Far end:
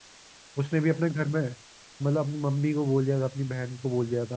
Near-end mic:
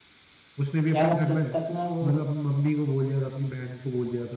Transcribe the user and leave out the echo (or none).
यार अब जब तक ना वो